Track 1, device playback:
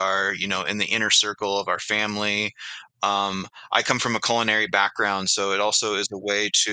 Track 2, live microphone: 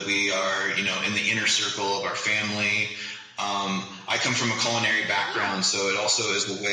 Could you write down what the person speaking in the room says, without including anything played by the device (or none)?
yeah.